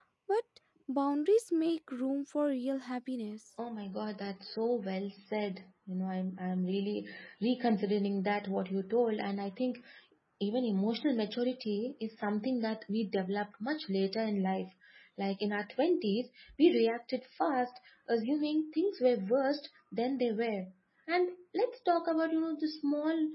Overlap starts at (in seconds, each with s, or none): none